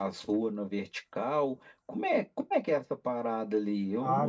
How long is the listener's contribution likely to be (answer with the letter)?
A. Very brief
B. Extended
B